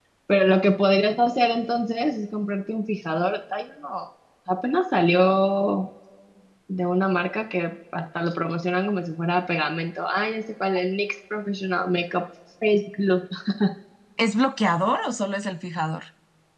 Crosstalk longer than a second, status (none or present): none